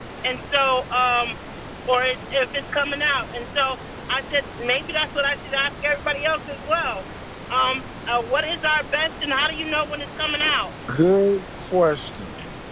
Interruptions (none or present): none